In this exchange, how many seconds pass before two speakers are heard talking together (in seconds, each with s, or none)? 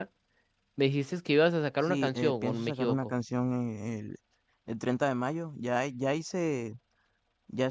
1.8 s